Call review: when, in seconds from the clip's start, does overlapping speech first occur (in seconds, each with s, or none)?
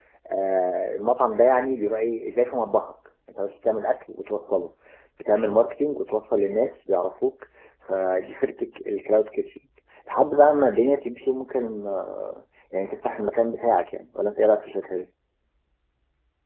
none